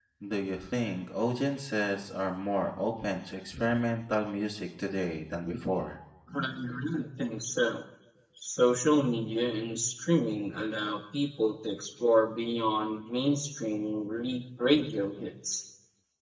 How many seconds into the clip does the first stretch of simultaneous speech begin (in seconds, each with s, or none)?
none